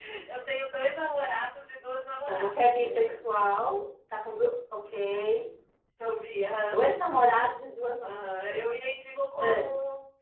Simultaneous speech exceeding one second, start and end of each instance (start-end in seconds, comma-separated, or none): 2.3-3.5